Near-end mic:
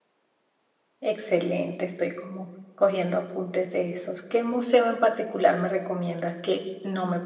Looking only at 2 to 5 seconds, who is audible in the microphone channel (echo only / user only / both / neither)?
user only